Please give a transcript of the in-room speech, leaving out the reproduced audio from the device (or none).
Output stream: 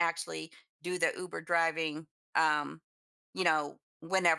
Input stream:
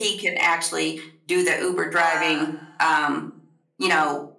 uh,